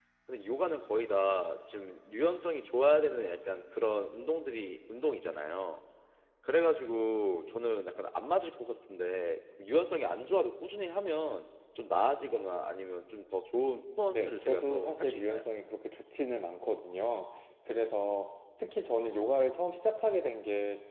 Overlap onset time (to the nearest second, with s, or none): 14 s